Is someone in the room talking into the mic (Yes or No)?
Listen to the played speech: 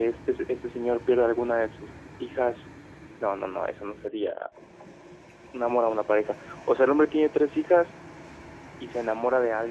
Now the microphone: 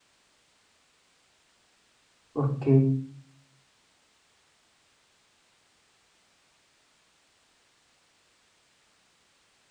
Yes